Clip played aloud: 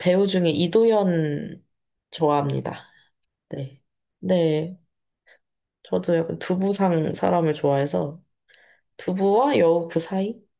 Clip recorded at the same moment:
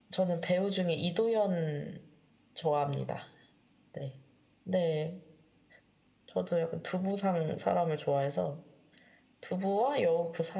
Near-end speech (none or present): none